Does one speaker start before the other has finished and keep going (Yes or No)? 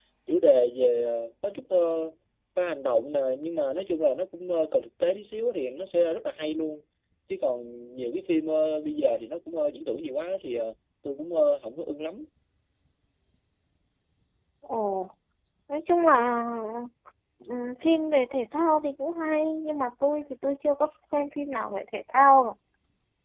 No